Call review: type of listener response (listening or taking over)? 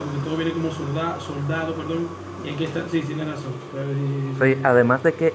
taking over